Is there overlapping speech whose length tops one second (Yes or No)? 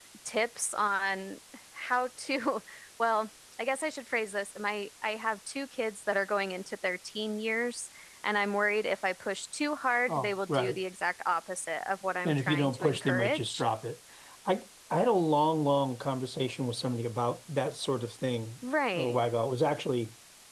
Yes